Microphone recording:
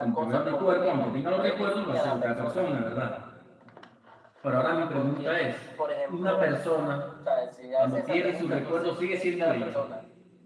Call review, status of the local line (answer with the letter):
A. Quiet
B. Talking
B